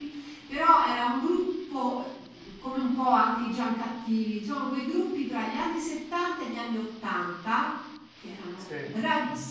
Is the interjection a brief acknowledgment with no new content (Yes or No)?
Yes